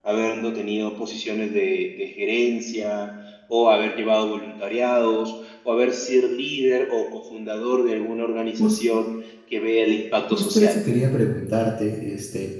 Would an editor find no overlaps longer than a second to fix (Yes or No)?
Yes